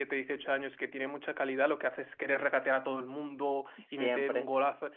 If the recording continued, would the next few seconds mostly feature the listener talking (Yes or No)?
No